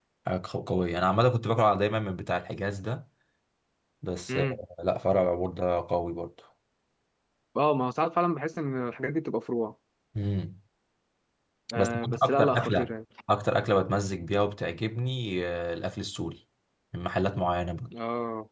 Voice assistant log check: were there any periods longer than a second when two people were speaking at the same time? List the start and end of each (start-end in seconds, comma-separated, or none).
11.7-12.9